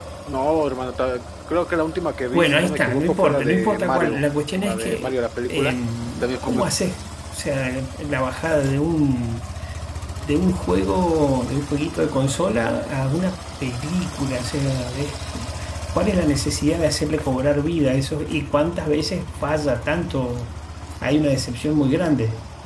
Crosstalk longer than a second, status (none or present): present